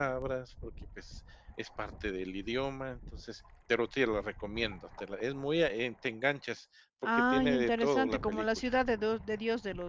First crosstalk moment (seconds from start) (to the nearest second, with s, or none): 7 s